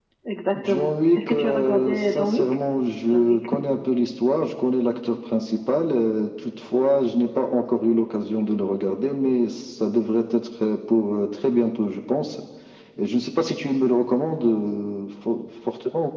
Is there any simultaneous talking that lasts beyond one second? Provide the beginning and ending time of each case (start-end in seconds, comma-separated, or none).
0.6-2.5